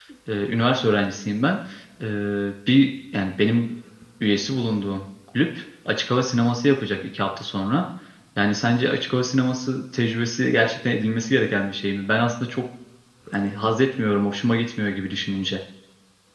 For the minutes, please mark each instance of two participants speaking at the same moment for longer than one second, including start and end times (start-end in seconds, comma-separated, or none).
none